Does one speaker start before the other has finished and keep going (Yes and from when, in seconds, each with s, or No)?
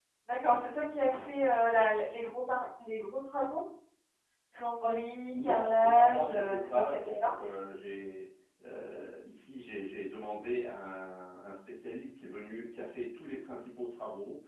Yes, from 5.3 s